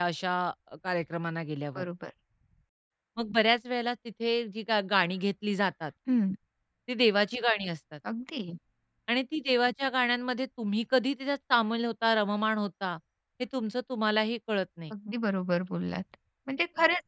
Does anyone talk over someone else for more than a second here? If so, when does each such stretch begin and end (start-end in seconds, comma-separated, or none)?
none